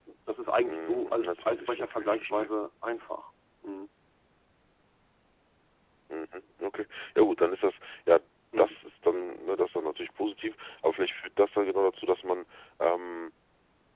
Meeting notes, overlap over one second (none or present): present